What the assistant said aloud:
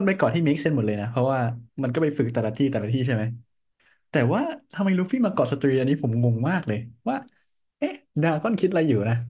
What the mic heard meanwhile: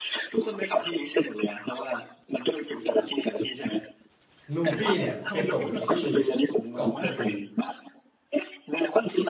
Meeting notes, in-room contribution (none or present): present